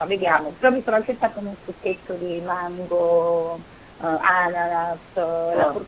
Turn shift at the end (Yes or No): No